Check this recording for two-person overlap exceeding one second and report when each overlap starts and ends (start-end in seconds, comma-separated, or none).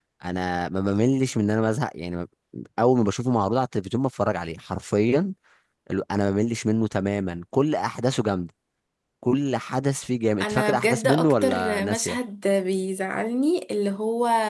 10.4-12.2